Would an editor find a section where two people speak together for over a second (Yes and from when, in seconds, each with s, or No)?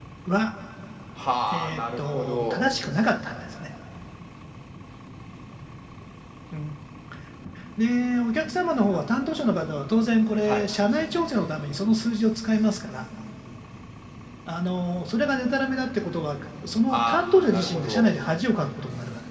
Yes, from 1.5 s